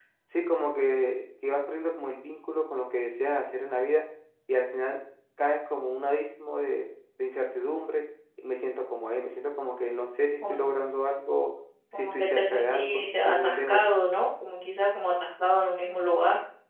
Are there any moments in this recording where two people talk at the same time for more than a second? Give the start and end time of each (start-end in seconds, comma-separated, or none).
12.0-13.8